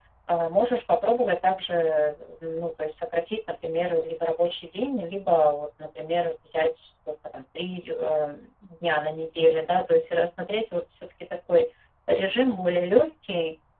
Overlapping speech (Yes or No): No